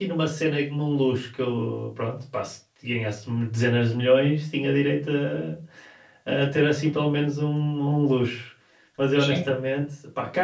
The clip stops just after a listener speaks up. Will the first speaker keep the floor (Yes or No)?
Yes